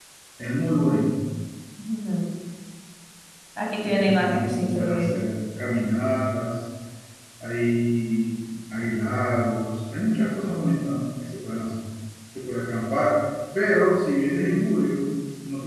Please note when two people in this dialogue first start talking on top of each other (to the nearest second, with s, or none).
4 s